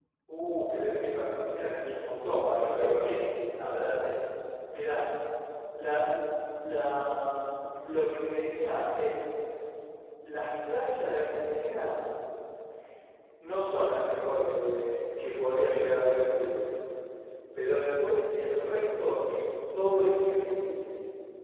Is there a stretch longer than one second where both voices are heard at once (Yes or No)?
No